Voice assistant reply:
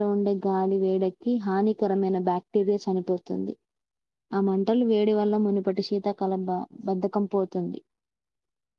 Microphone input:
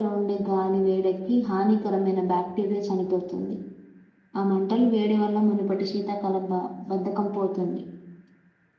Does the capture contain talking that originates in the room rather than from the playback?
No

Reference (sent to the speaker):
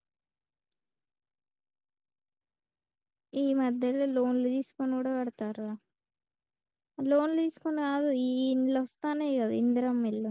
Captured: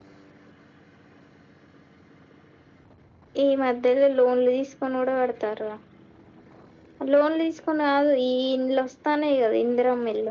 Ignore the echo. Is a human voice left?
No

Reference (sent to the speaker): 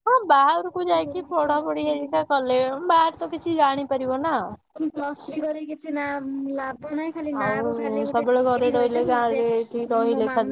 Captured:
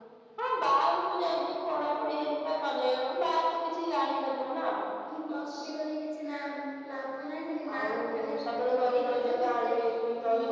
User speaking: No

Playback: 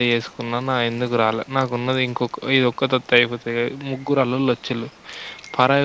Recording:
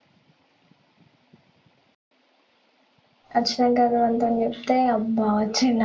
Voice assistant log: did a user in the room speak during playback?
Yes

